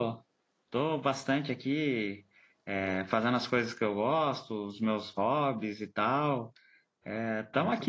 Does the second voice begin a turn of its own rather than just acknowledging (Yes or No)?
Yes